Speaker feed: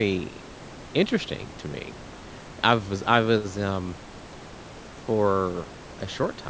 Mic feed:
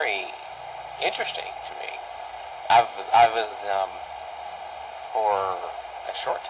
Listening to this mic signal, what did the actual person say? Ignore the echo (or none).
none